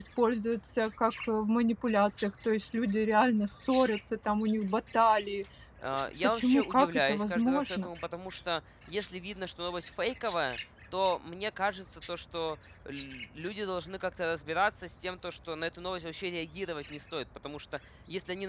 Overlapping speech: Yes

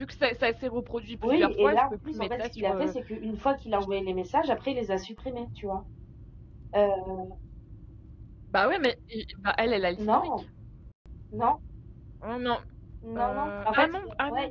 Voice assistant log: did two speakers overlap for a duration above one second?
Yes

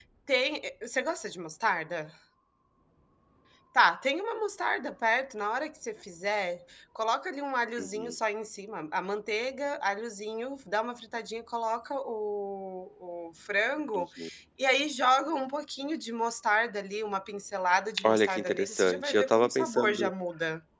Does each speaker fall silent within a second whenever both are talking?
No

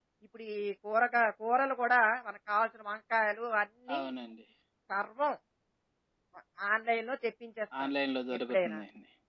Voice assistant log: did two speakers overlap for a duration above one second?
No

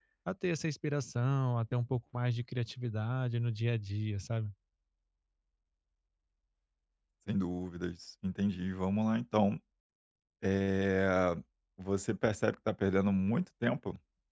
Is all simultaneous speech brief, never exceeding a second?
Yes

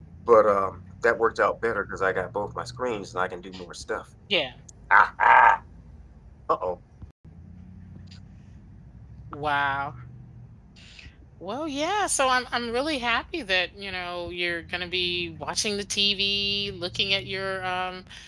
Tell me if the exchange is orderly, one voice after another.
Yes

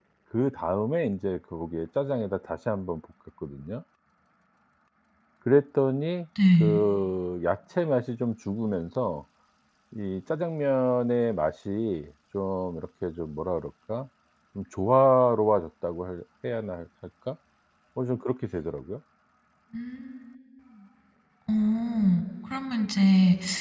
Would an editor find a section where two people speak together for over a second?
No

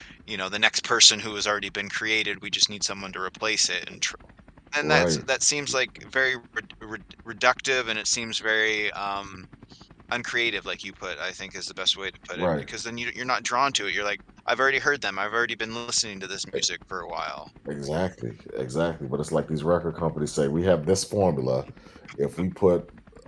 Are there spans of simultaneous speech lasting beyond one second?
No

